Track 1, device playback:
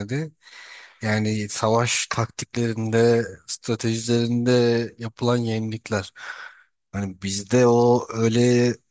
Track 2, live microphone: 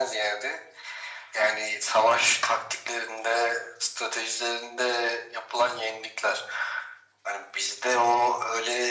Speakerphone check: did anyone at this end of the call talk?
No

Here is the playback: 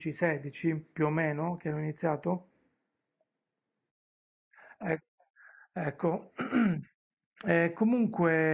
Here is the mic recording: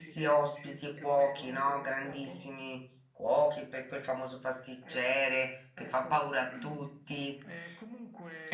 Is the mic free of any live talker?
No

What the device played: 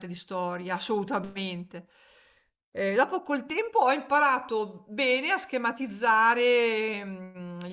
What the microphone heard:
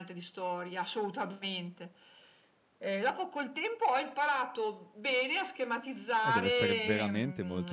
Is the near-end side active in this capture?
Yes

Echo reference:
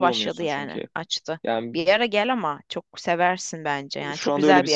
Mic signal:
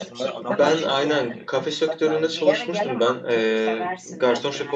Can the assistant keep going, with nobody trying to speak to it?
No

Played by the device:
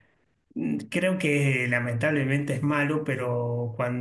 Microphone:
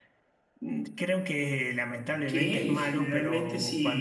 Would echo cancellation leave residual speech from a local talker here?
Yes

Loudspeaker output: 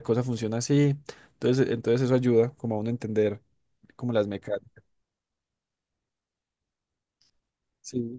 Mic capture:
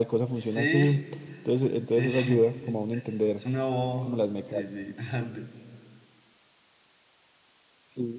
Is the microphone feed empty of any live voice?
No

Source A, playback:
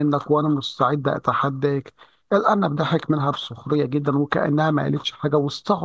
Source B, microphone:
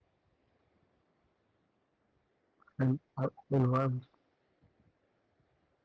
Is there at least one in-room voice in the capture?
Yes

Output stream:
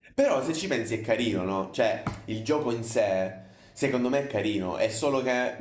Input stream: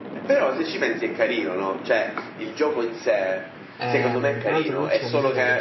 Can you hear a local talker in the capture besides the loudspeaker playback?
Yes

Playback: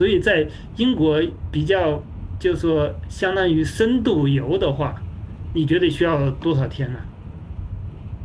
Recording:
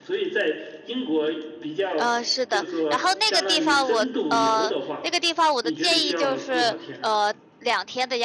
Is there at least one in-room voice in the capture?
Yes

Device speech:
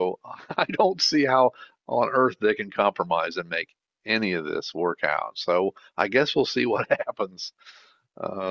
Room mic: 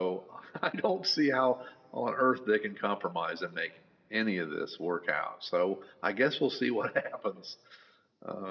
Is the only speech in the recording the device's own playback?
Yes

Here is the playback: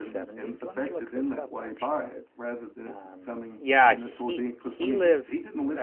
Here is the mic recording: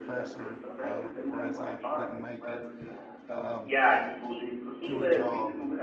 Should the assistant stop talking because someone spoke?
Yes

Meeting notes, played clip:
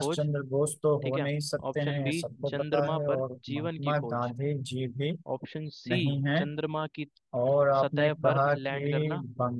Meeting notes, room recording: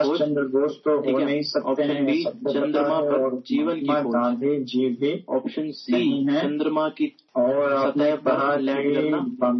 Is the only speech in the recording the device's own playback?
Yes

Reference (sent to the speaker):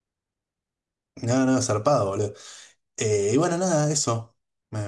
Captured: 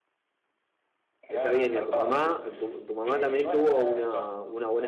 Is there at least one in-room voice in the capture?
Yes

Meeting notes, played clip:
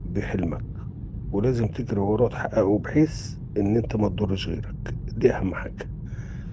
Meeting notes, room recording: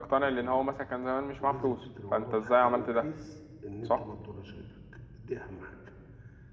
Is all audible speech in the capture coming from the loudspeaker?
No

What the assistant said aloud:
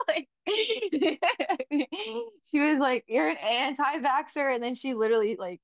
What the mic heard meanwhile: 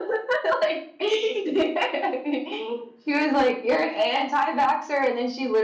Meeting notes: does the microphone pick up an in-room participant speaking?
No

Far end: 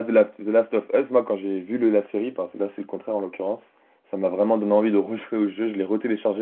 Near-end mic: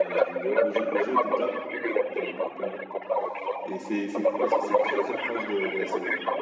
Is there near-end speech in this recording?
Yes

